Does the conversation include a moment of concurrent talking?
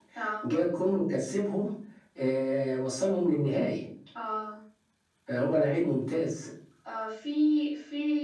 No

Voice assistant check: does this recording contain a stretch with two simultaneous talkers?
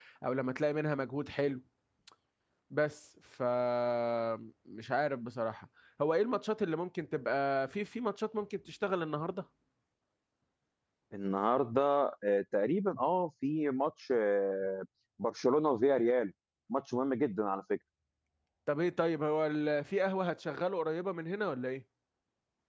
No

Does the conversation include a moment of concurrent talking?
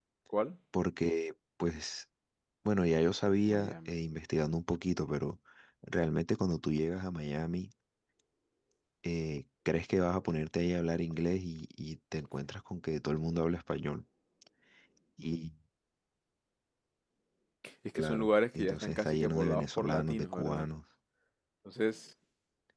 Yes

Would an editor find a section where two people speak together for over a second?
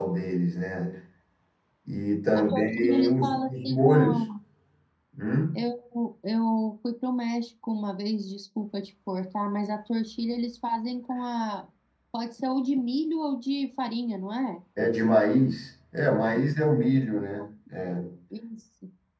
Yes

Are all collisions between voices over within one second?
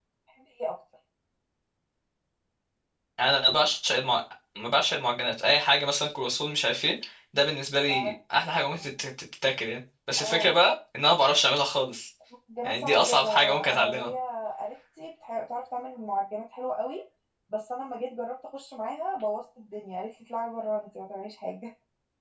No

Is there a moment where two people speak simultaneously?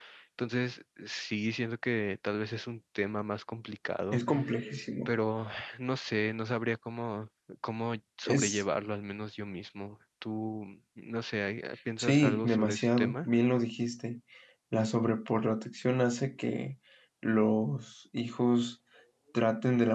Yes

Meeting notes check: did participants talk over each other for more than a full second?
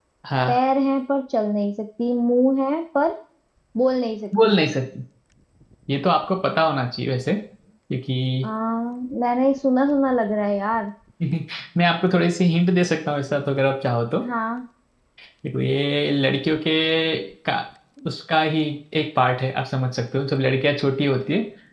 No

